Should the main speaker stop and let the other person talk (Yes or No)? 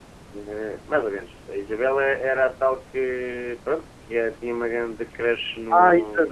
Yes